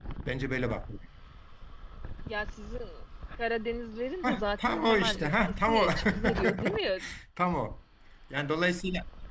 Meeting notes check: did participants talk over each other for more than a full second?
Yes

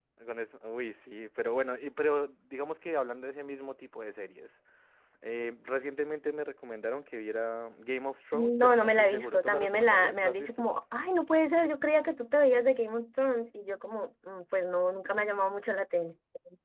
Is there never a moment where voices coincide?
No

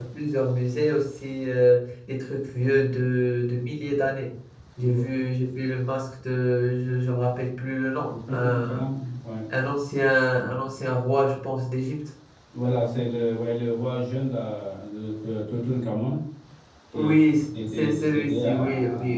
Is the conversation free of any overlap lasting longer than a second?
No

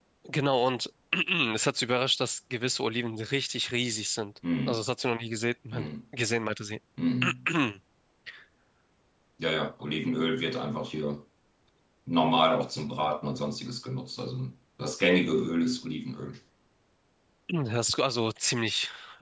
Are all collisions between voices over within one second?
Yes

